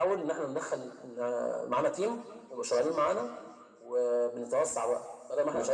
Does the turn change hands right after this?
No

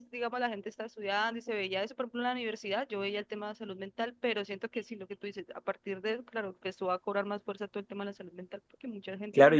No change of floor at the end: No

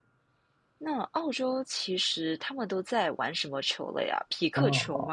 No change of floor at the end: No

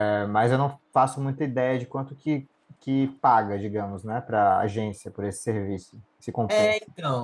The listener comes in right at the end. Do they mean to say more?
Yes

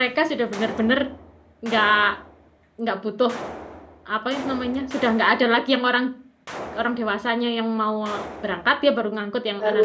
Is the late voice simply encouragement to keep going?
No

